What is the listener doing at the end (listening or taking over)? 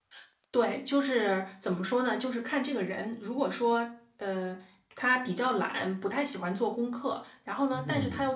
listening